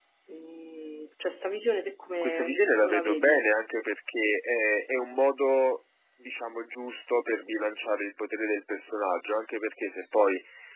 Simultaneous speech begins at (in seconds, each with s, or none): 2.2 s